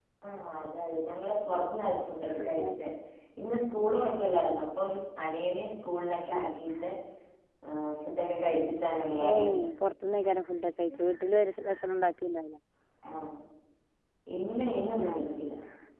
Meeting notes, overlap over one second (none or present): none